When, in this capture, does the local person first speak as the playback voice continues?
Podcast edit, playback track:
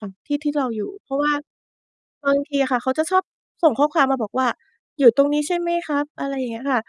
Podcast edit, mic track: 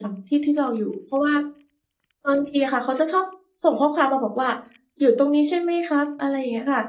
none

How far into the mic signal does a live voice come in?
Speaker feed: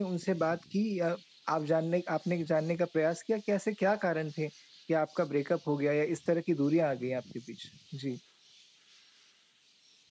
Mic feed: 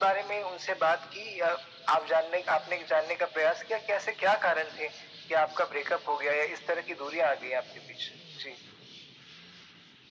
none

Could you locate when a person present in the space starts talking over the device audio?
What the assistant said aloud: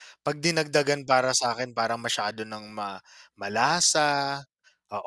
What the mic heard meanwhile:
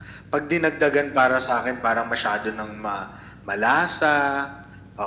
none

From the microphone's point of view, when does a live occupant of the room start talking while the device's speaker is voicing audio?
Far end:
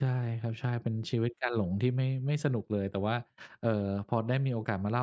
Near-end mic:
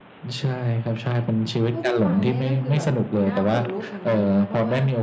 1.7 s

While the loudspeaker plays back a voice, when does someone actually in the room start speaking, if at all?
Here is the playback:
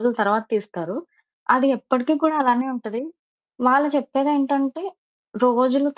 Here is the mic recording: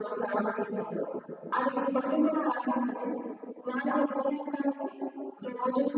none

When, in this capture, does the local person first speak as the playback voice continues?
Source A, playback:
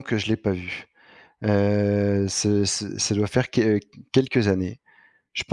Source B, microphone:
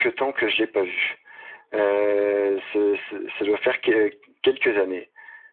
none

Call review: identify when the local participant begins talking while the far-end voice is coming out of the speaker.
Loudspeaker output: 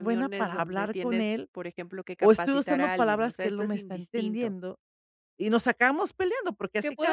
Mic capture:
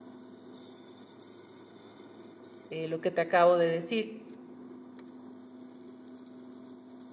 2.7 s

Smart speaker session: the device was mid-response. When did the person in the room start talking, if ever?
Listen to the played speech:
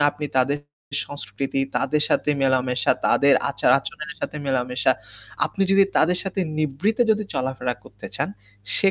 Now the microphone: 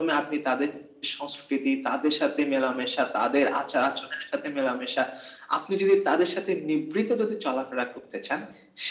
none

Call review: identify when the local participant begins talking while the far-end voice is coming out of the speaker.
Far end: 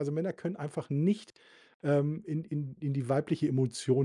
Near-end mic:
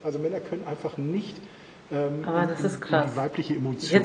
2.2 s

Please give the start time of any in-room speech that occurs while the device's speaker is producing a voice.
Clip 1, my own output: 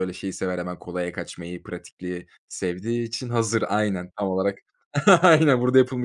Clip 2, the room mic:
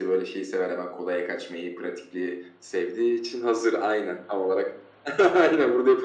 none

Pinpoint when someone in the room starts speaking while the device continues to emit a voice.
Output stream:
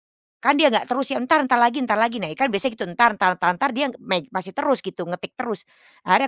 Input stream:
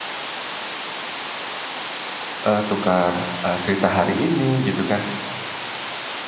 2.4 s

